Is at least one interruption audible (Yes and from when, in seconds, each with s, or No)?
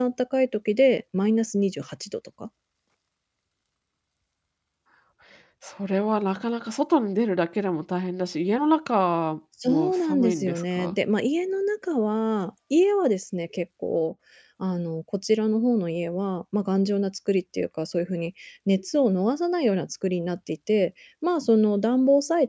Yes, from 9.6 s